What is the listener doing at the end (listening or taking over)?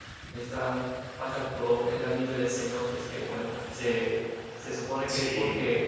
listening